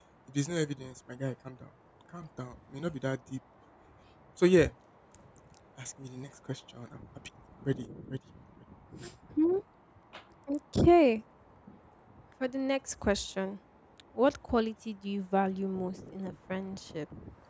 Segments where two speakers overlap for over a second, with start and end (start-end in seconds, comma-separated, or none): none